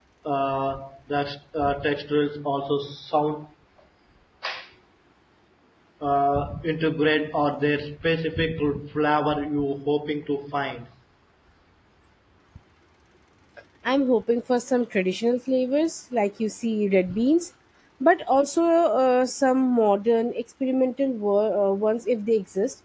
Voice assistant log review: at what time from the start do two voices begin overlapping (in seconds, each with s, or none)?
none